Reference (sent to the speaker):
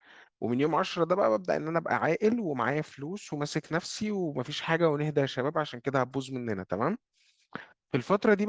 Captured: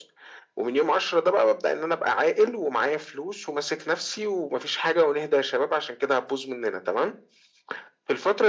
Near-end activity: none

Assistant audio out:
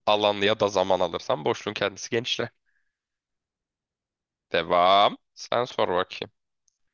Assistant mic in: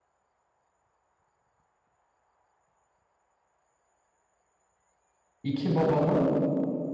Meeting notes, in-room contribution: present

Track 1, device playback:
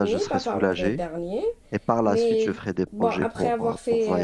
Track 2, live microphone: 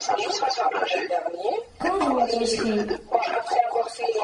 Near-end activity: present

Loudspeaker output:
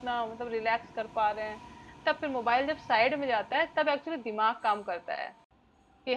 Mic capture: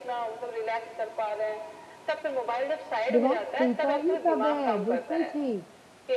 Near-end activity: present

